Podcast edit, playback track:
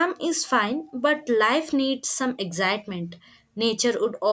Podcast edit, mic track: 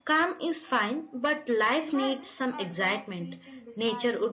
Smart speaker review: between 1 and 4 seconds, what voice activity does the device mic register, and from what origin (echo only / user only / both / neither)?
both